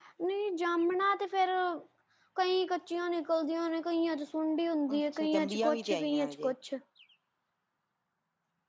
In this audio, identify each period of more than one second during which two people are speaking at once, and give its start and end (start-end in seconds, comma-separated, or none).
5.0-6.5